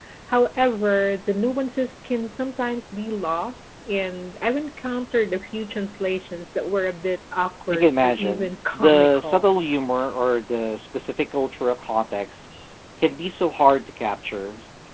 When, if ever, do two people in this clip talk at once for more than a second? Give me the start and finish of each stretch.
7.7-9.5

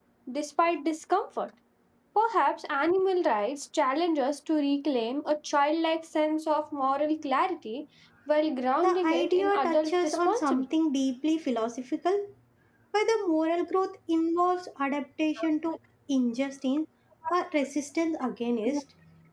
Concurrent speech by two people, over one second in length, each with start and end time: 8.8-10.6

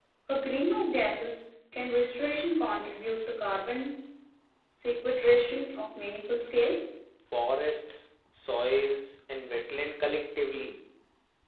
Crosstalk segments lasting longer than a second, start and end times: none

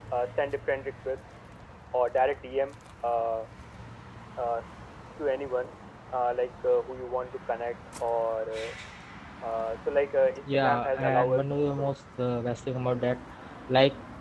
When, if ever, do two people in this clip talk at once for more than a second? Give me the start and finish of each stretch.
10.4-11.9

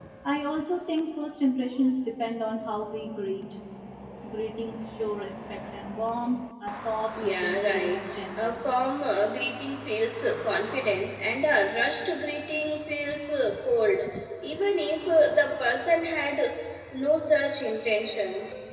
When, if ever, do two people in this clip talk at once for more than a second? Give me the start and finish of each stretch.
7.2-8.6

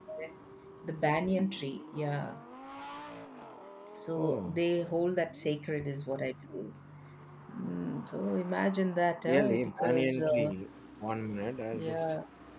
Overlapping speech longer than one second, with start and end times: 9.3-10.5

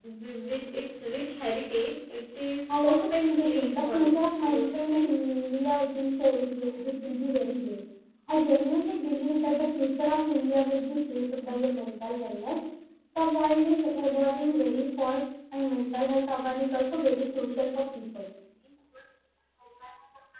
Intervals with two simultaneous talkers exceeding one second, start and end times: 2.8-5.1

